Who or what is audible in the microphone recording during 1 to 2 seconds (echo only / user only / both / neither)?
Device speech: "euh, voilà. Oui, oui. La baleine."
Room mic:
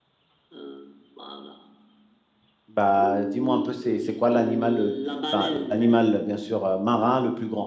echo only